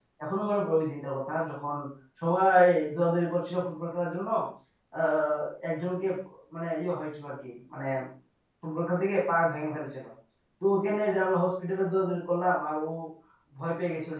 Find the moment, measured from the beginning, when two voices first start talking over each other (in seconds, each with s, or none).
none